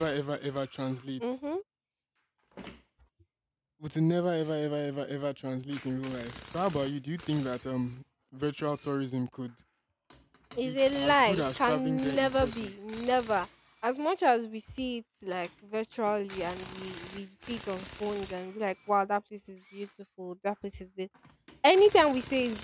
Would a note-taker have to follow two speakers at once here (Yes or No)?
Yes